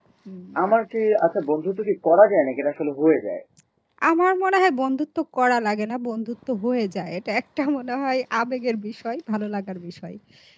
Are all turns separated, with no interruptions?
Yes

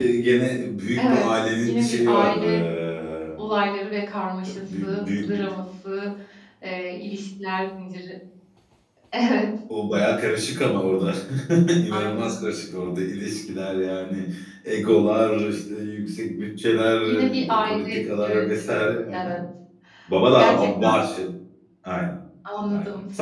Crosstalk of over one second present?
Yes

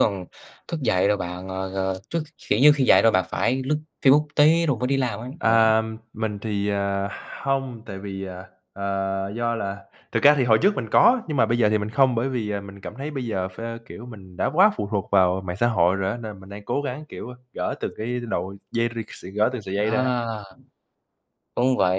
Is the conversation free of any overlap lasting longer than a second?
Yes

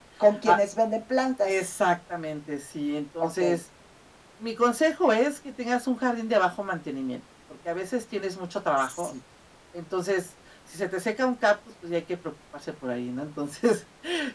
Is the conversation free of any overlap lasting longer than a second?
Yes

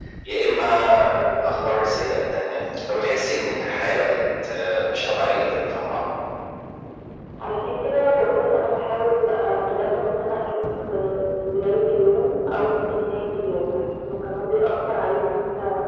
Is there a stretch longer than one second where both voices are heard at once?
No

